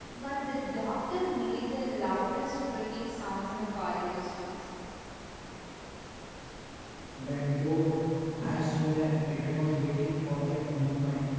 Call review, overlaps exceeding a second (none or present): none